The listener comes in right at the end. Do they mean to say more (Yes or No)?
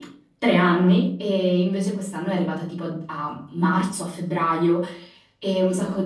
No